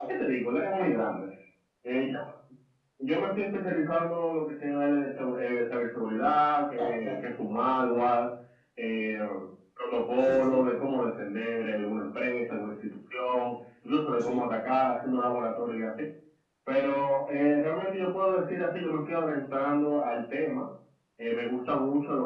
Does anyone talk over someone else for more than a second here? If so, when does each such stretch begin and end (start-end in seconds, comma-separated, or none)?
none